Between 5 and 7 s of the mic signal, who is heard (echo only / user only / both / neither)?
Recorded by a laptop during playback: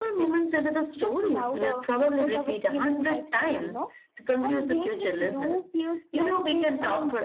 echo only